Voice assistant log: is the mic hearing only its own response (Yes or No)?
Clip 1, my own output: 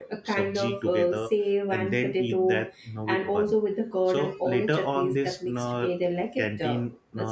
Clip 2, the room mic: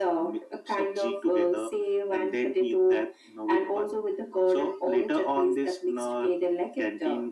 Yes